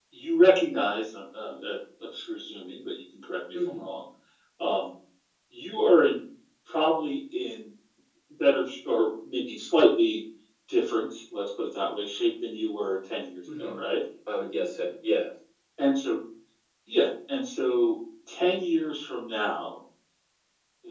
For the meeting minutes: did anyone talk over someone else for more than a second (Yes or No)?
No